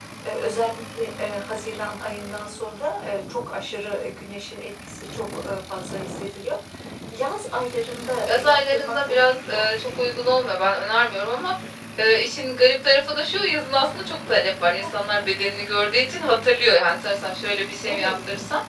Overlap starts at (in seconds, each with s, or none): 8.3 s